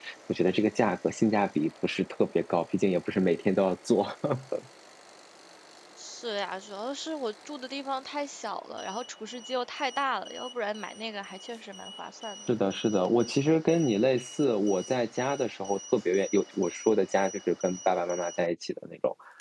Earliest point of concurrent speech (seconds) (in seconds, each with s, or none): none